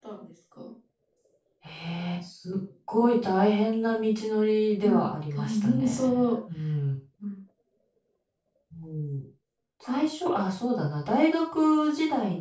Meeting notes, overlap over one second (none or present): present